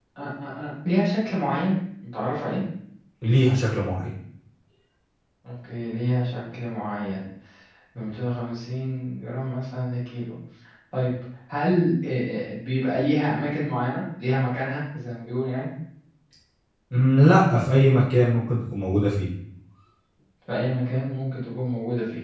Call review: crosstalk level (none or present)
none